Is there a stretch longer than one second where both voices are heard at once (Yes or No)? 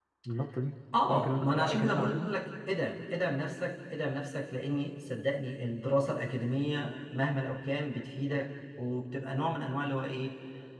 Yes